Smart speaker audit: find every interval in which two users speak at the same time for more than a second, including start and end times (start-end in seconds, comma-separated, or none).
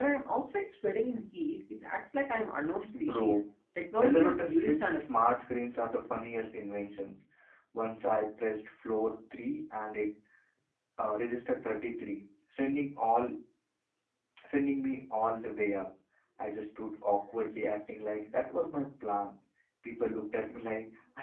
4.0-5.3